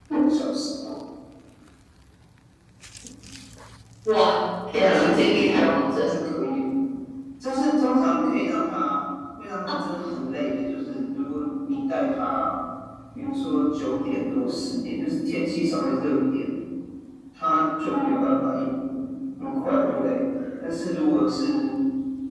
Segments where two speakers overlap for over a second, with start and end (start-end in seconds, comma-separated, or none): 4.7-6.1